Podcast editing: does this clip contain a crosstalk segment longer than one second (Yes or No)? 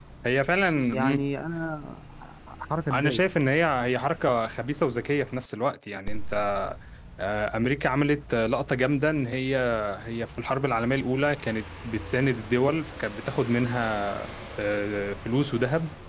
No